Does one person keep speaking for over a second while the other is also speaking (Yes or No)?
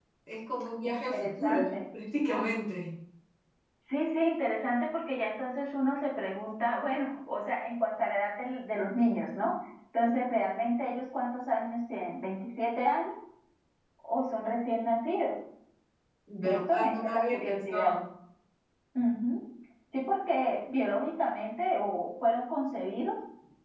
Yes